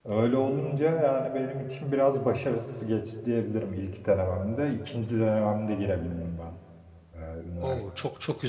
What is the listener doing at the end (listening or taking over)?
taking over